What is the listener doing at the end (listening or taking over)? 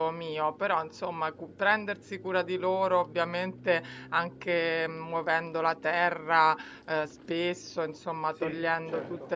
listening